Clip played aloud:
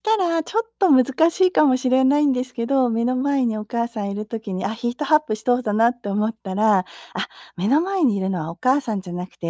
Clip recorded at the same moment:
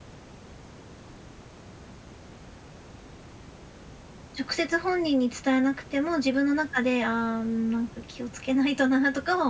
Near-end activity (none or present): present